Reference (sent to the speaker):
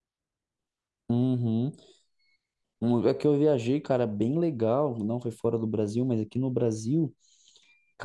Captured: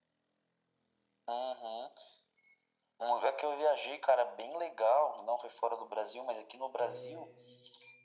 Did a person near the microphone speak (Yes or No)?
Yes